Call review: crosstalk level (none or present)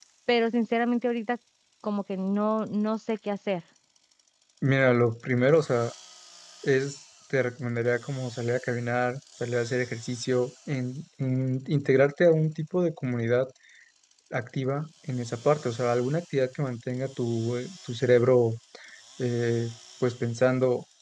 none